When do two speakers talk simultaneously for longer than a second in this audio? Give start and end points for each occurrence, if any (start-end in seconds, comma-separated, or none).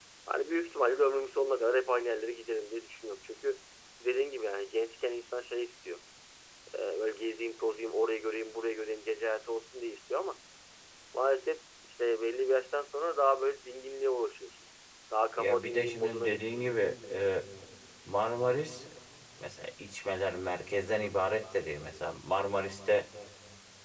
15.4-16.6